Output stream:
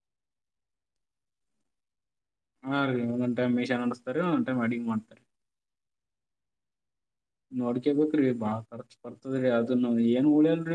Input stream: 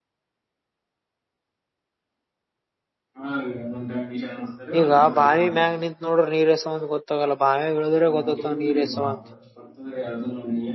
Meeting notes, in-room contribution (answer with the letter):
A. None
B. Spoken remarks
B